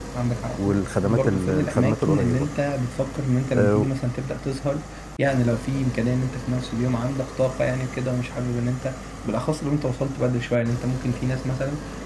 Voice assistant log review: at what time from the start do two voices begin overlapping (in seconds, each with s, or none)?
0.6 s